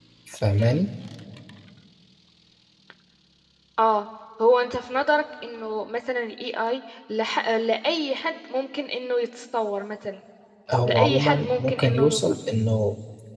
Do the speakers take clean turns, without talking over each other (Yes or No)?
No